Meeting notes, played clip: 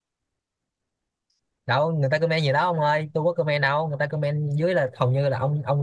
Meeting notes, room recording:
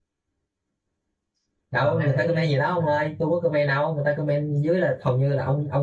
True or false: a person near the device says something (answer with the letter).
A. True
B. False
A